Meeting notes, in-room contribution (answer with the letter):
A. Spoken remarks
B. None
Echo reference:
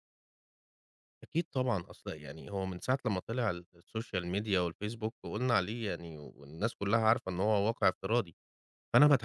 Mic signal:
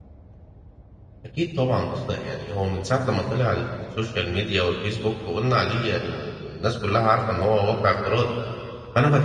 B